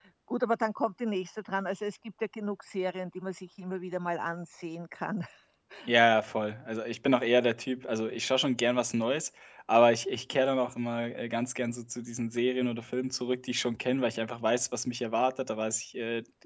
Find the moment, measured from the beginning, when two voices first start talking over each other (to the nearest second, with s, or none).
none